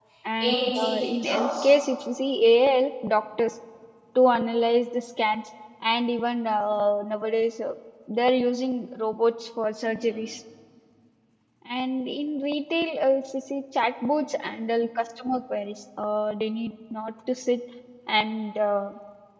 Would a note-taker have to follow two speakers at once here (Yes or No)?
Yes